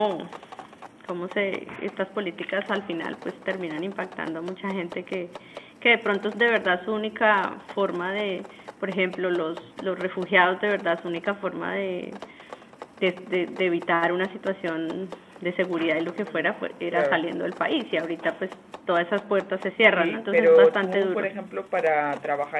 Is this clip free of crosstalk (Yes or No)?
No